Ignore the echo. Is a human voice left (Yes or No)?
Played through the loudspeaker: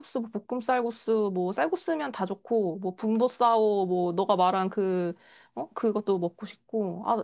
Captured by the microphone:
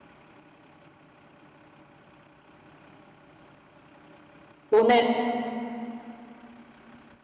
Yes